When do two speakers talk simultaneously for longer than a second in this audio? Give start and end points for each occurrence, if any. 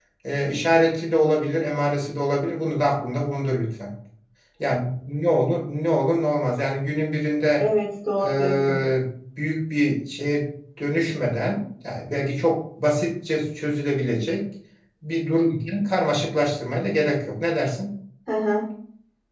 none

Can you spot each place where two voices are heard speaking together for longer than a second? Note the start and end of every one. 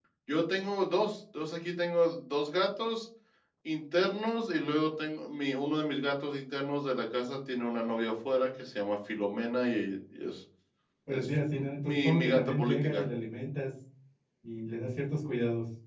11.1-13.0

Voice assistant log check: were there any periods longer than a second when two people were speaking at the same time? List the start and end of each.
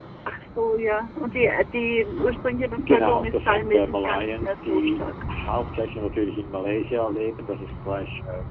2.8-5.1

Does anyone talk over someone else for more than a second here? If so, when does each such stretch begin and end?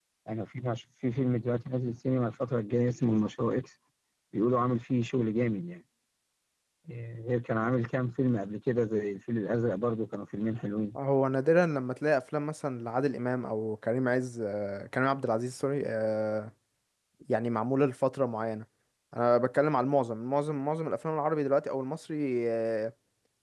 none

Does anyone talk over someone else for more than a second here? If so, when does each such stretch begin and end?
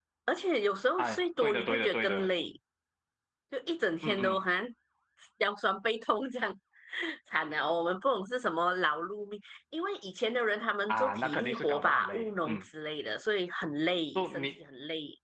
1.0-2.3, 10.9-12.6

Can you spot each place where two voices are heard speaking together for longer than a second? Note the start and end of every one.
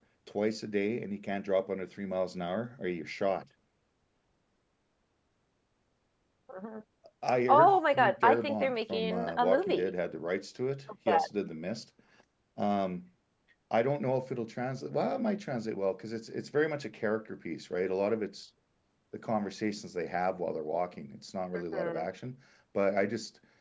7.5-9.9

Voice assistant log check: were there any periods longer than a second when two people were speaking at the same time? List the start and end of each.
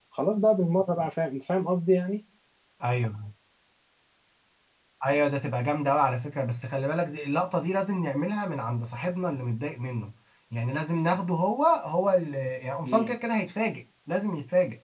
none

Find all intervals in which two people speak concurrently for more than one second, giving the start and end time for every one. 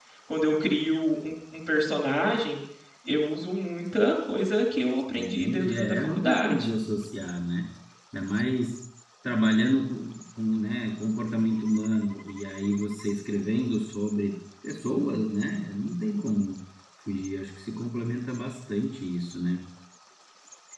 5.2-6.7

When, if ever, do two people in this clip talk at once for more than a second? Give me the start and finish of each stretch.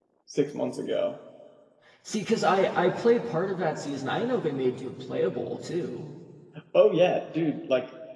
none

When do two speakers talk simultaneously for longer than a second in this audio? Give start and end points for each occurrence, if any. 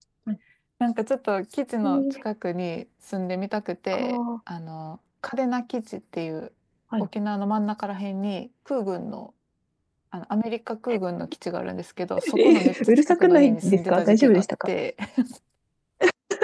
12.4-14.7

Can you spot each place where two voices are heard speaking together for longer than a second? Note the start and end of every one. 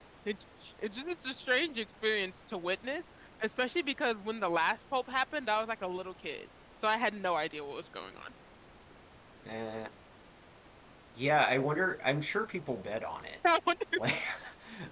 none

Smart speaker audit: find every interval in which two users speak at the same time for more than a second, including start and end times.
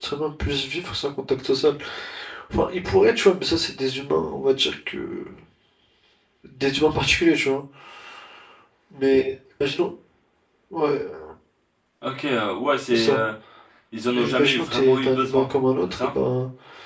14.1-15.5

